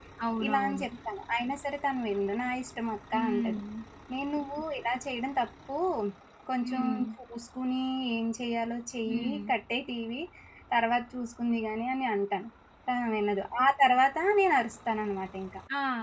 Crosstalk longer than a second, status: none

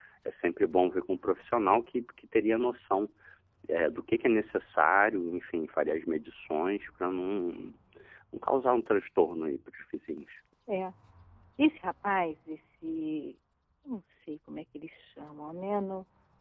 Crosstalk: none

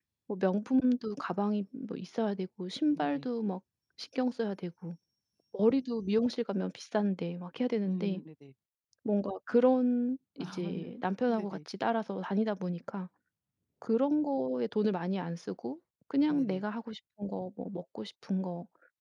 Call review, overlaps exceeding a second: none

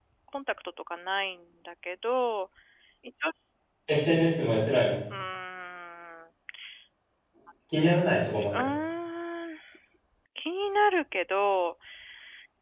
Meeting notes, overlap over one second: none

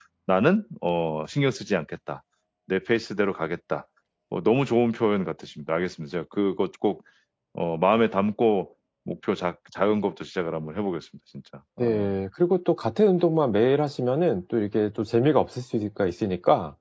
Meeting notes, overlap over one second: none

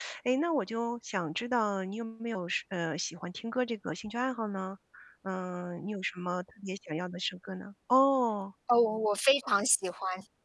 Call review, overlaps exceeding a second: none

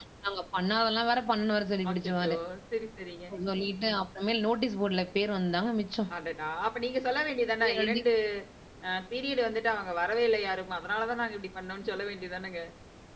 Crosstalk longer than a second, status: none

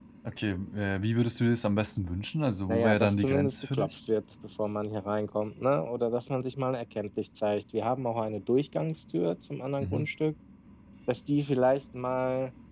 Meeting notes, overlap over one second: present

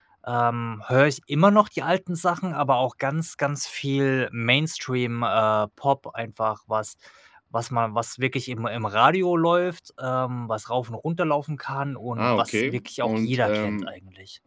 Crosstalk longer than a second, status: present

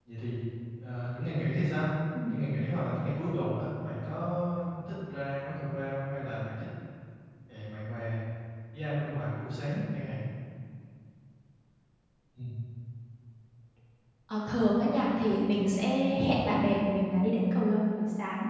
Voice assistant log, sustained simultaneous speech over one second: none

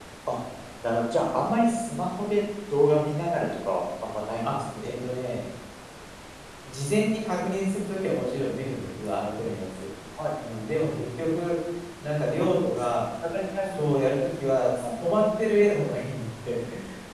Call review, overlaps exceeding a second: none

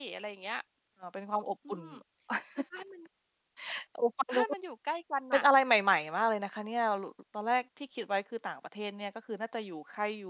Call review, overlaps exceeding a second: none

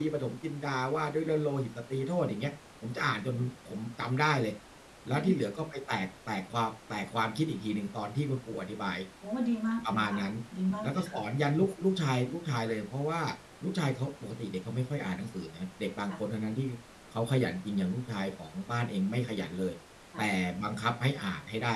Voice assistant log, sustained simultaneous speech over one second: none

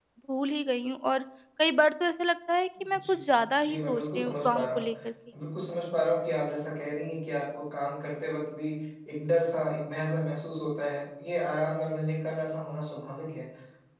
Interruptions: present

